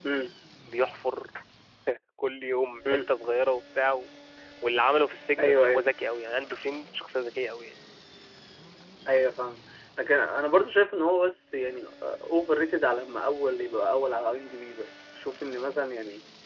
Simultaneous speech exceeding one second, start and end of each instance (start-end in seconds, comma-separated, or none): none